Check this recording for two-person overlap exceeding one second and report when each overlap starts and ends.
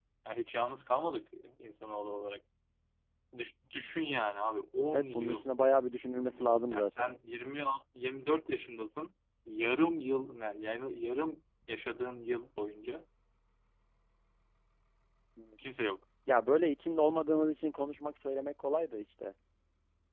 none

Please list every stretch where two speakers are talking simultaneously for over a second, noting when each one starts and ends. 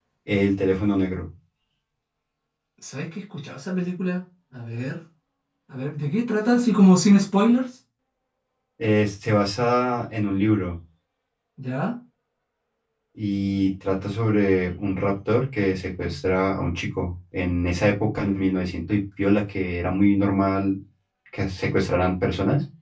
none

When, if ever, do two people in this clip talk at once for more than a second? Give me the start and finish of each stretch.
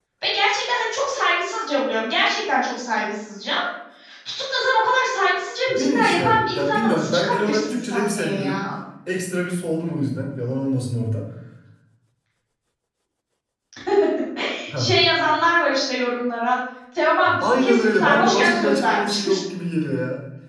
5.7-8.6, 17.4-19.4

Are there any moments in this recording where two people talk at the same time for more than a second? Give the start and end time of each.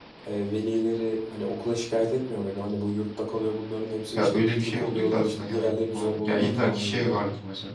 4.2-7.2

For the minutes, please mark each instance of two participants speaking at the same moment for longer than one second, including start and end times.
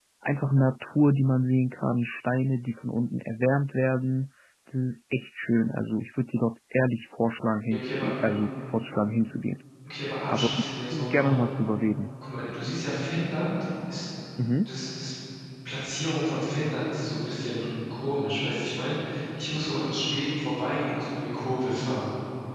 none

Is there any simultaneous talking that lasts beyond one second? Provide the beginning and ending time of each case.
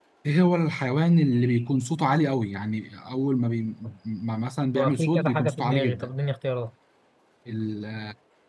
4.8-6.1

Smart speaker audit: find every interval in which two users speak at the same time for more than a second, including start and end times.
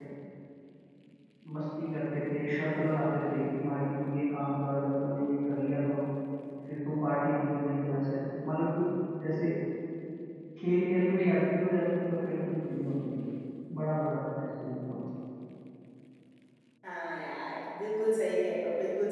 none

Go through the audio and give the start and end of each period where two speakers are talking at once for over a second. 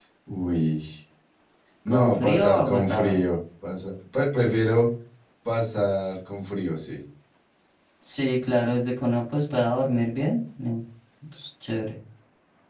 1.9-3.2

